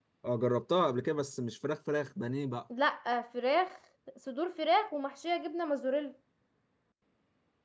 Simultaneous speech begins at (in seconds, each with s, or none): none